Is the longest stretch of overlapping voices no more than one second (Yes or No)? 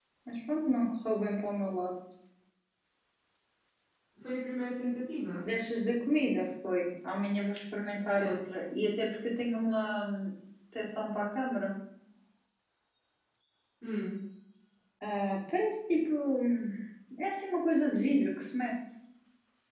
Yes